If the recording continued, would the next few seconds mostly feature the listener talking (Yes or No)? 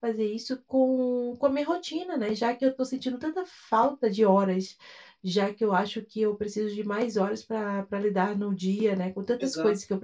No